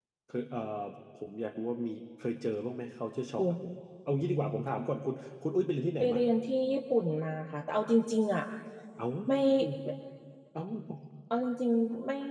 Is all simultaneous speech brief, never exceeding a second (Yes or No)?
Yes